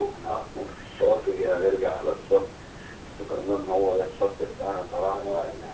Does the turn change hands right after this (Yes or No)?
No